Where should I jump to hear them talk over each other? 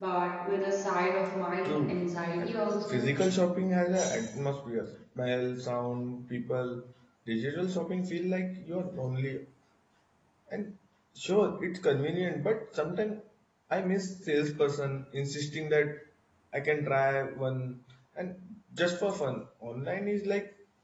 1.6 s

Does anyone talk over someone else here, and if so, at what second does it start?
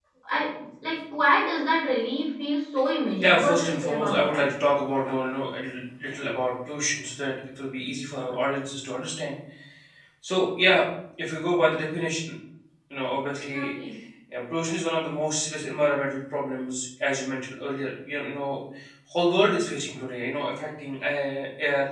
3.2 s

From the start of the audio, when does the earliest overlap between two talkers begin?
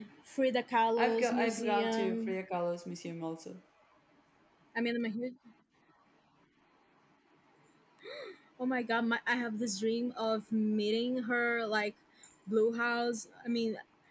1.0 s

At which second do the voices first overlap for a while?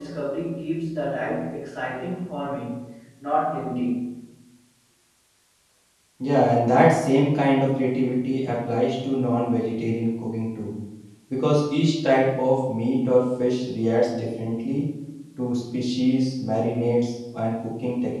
none

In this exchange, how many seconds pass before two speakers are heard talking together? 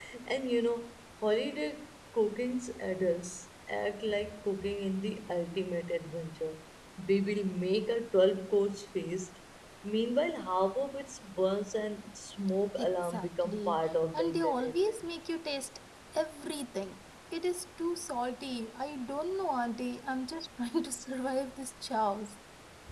12.8 s

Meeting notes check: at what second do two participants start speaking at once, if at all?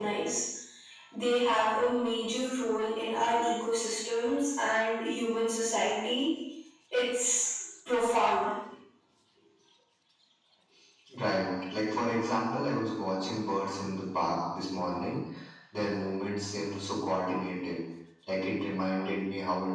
none

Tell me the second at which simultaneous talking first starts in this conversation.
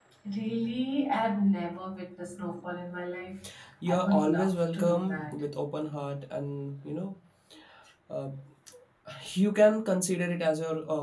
3.9 s

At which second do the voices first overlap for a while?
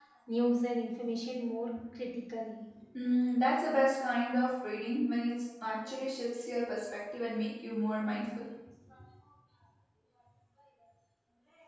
none

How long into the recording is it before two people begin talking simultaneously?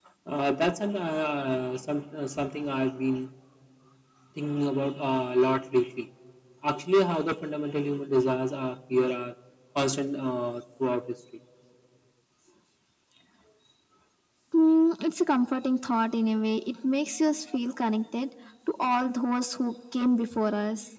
none

